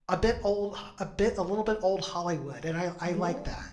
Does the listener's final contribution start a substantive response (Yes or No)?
Yes